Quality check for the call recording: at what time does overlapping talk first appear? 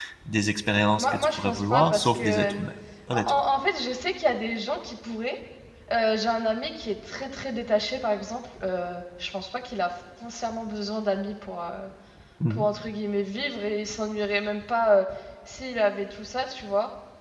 1.0 s

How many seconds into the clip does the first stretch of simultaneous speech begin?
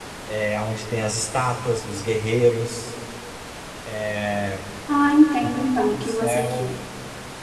5.4 s

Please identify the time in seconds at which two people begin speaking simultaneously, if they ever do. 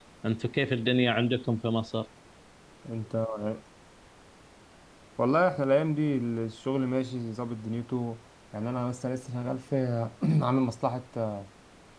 none

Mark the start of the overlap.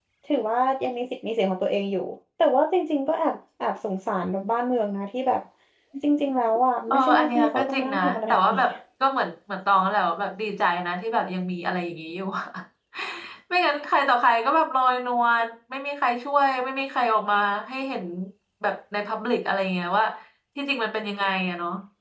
6.9 s

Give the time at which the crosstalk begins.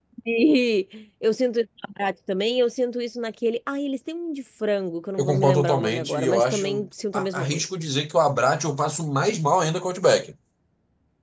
5.2 s

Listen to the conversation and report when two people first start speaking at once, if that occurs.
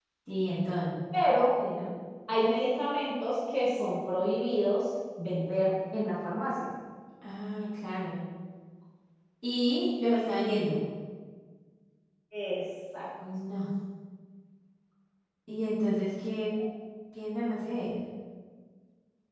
none

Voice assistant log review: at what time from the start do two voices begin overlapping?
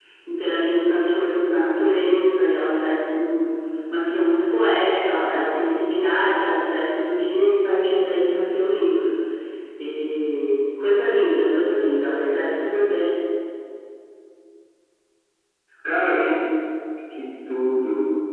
none

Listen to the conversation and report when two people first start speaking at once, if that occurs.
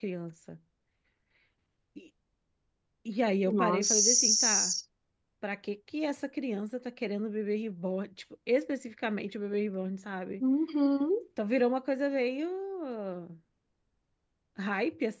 3.5 s

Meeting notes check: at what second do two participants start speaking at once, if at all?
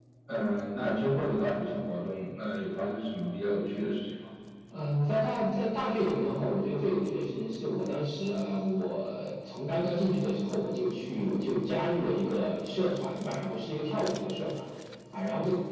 none

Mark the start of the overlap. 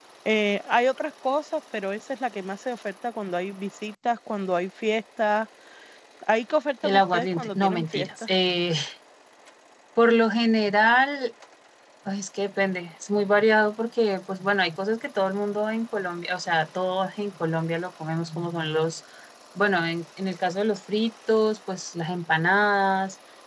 6.8 s

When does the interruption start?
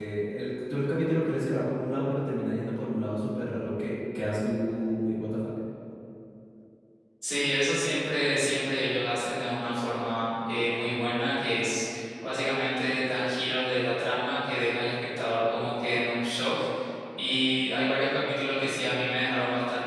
none

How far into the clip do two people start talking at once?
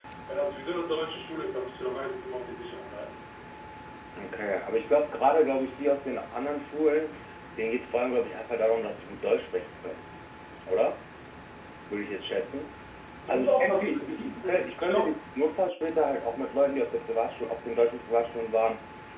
13.3 s

